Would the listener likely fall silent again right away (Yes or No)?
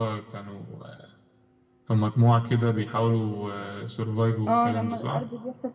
No